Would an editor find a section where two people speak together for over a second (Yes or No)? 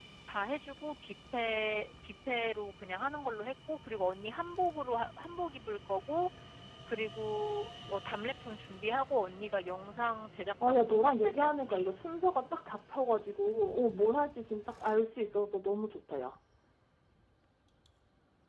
Yes